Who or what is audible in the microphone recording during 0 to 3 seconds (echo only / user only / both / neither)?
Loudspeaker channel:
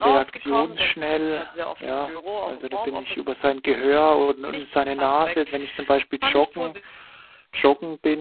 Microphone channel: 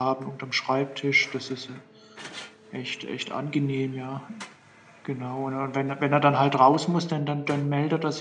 user only